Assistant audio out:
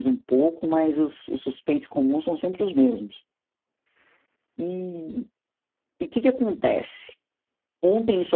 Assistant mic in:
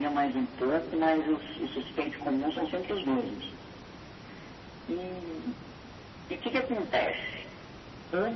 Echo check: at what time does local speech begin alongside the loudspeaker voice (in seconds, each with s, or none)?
none